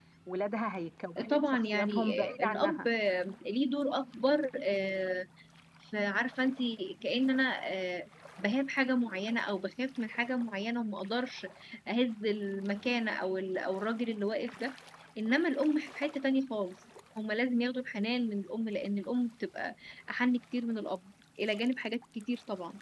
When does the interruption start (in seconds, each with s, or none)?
1.3 s